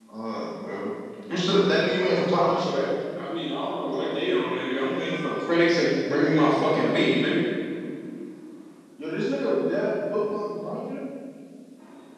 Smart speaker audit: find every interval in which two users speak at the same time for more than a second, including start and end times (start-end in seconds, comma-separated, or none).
none